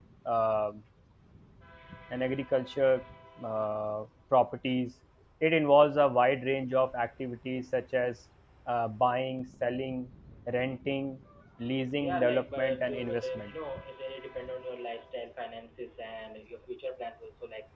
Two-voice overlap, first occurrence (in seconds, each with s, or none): 12.0 s